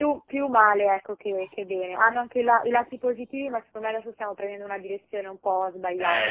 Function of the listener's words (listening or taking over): taking over